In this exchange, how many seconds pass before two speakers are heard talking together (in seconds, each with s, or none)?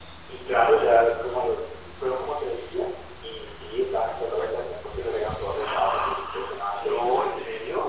5.5 s